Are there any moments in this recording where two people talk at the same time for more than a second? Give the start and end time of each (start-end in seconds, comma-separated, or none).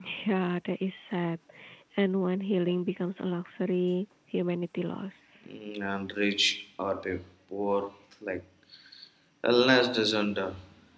none